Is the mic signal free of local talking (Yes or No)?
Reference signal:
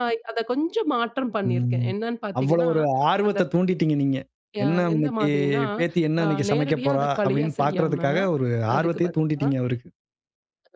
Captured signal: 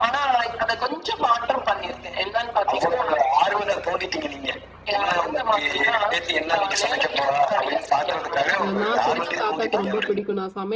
No